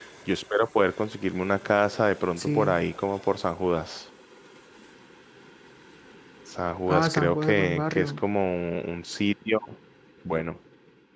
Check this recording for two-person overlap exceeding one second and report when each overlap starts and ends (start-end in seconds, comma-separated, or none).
6.9-8.2